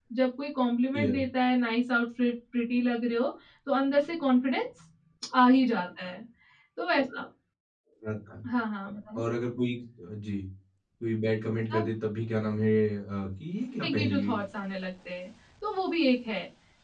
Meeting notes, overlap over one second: none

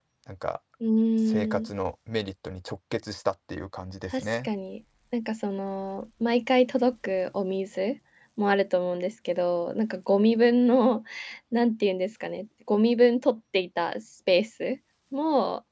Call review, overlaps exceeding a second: none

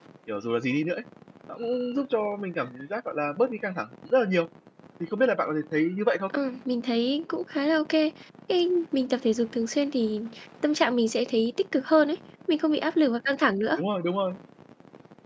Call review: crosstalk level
none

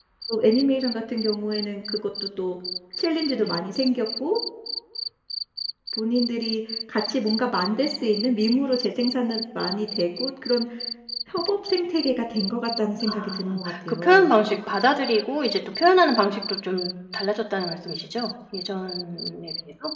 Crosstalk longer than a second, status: present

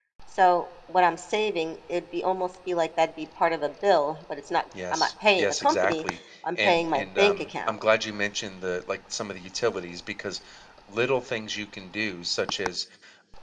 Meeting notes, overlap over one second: present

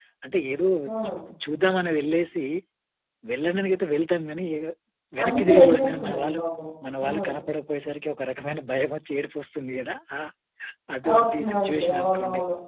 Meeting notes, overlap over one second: present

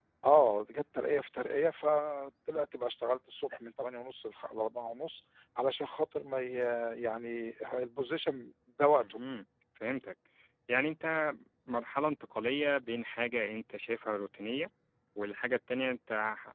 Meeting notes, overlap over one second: none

